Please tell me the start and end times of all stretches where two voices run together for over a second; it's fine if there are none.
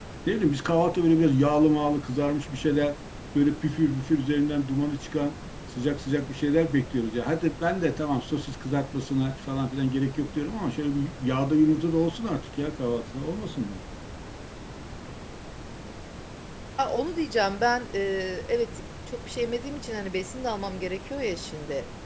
none

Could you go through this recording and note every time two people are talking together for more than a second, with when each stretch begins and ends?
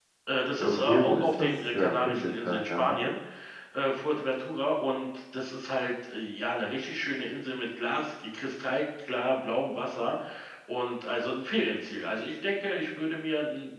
0.6-3.0

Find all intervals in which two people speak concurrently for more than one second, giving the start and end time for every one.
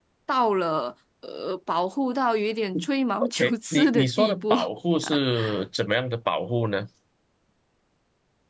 3.2-4.6

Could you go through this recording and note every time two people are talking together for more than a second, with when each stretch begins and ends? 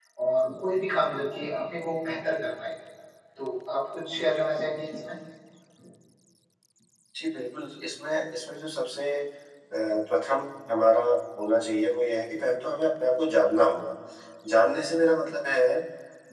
none

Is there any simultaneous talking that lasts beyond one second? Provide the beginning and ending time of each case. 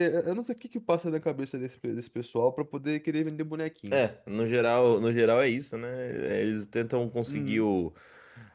none

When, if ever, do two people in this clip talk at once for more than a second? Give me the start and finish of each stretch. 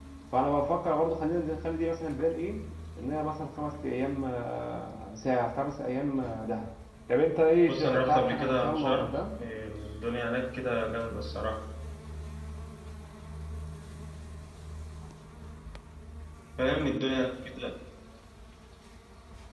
7.7-9.2

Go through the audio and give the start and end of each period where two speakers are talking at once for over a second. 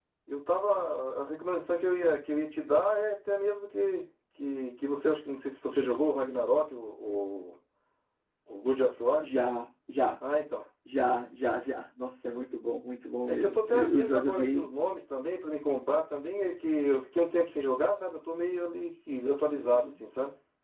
13.3-14.7

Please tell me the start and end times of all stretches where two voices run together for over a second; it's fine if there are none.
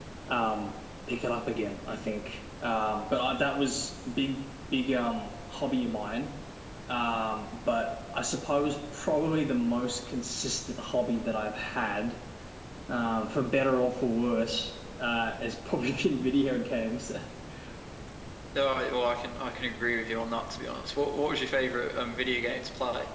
none

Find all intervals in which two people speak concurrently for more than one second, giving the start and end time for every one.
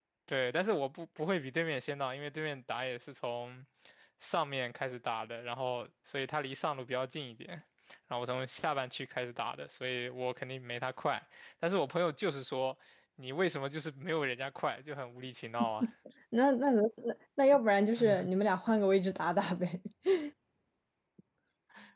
none

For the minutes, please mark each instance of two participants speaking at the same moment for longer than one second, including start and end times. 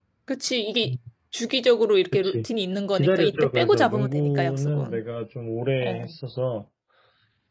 2.9-5.0

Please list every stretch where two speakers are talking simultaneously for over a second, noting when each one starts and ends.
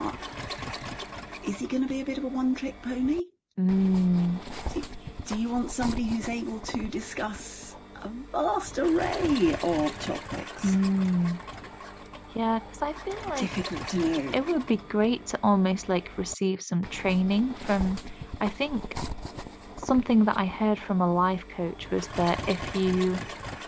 none

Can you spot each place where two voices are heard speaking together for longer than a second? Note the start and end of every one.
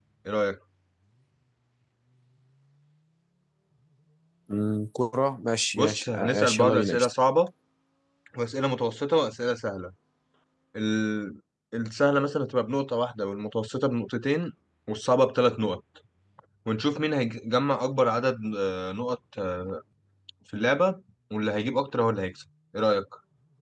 5.7-7.1

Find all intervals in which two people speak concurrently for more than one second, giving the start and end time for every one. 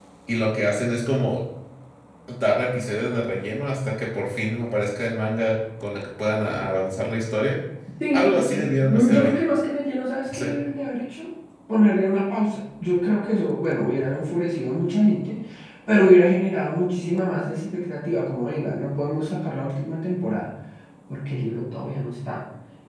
8.1-9.4

